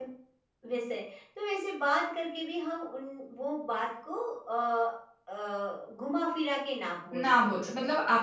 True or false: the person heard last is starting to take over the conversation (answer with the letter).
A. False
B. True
B